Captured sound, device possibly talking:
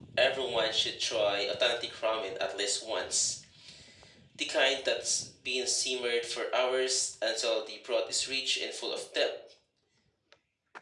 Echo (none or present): present